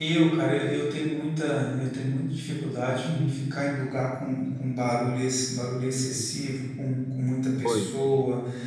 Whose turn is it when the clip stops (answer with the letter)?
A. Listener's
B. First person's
B